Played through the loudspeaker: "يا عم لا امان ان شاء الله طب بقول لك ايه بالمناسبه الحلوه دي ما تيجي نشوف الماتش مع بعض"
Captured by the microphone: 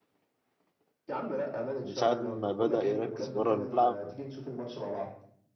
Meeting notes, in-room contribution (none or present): present